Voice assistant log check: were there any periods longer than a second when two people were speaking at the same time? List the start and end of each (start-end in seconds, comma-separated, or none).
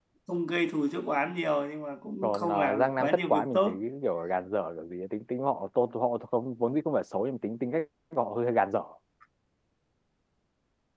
2.2-3.8